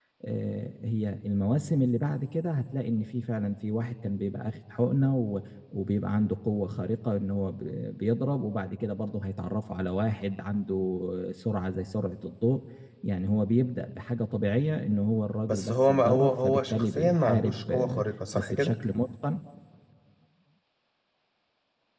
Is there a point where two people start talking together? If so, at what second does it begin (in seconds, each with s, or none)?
15.5 s